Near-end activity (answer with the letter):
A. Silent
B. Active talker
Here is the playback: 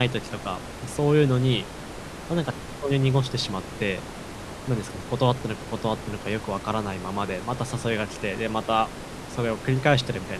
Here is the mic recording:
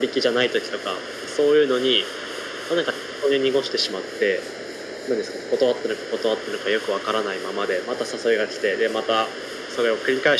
A